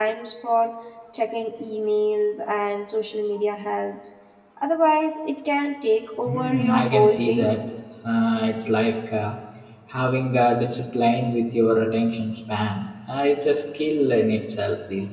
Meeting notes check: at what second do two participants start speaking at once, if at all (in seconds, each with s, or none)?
6.2 s